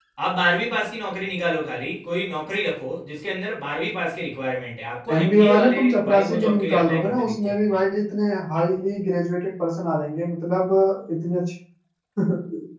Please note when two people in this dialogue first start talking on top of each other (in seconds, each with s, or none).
5.1 s